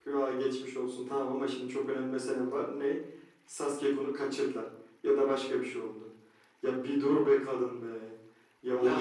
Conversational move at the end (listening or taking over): taking over